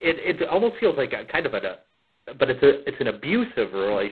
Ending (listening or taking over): taking over